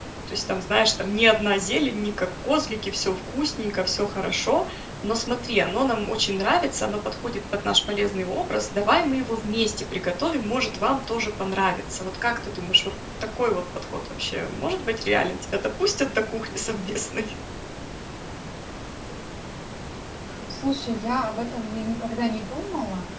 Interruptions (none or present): none